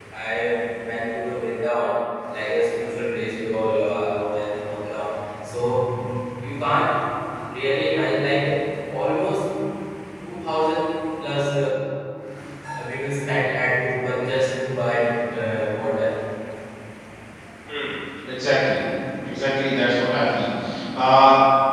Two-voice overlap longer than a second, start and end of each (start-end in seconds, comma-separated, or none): none